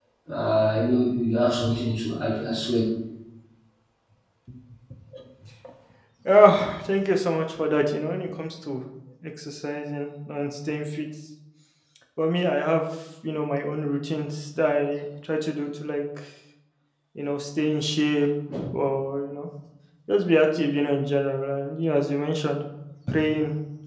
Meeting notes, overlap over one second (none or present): none